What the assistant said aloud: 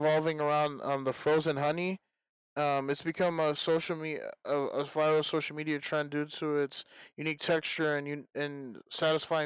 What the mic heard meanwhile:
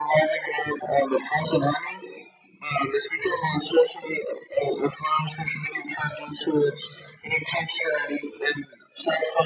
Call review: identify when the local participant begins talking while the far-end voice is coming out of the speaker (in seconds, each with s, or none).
none